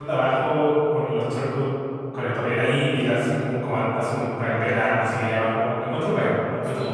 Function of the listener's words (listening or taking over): taking over